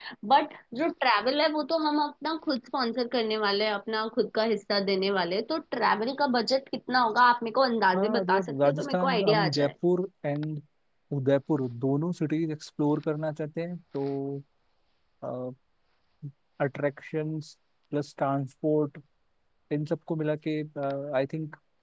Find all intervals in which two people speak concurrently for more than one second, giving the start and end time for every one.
7.9-9.7

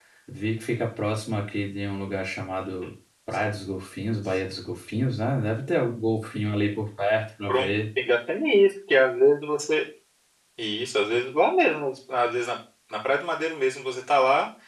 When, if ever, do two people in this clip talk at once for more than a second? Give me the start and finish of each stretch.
none

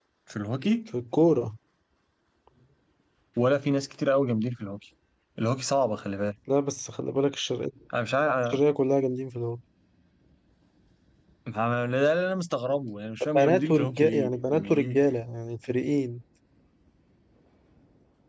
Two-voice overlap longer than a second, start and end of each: 13.3-15.0

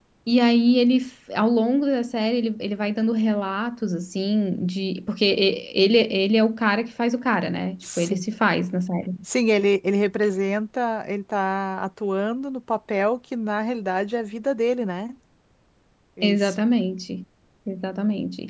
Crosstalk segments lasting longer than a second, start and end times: none

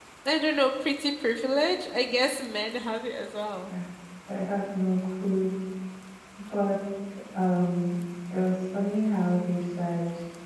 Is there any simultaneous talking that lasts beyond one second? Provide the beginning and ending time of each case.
none

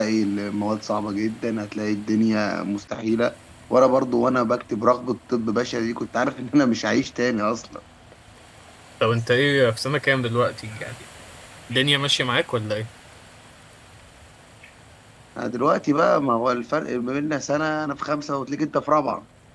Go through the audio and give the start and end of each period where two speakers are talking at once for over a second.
none

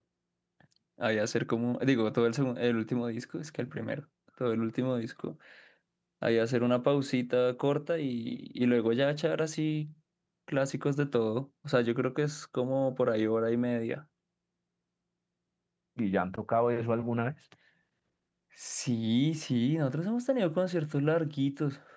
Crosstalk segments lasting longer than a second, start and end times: none

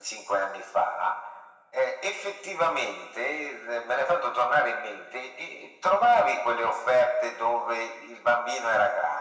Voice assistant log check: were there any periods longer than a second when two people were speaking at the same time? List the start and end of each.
none

